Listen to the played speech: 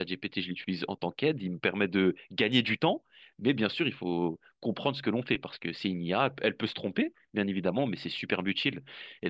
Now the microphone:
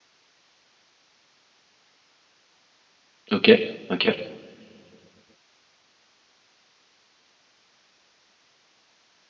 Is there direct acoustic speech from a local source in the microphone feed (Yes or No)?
Yes